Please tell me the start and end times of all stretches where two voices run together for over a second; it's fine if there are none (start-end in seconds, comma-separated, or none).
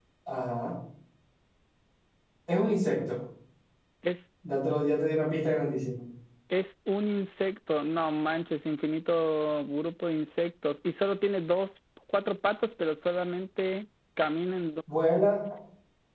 none